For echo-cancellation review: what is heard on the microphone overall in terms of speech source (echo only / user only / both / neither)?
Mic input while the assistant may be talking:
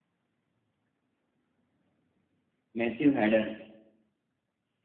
user only